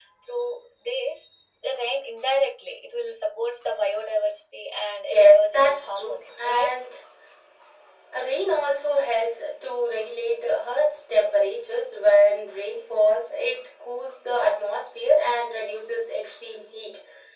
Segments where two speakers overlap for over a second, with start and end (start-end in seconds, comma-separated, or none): 5.1-6.8